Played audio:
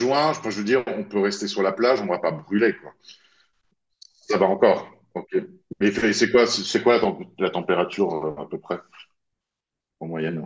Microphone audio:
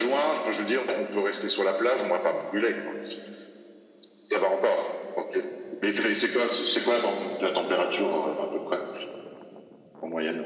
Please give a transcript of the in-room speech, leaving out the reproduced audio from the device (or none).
none